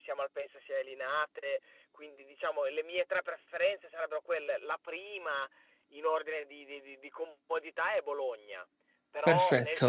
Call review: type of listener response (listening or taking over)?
listening